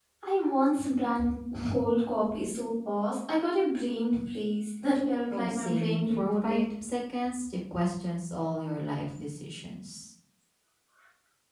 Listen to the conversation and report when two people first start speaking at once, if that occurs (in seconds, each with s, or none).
5.3 s